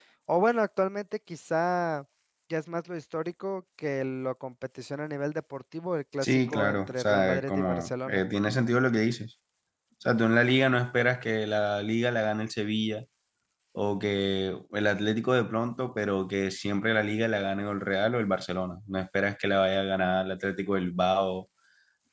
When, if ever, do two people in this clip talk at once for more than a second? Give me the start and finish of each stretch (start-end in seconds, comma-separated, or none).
6.2-8.2